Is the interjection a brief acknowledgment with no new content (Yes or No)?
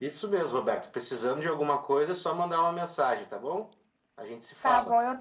No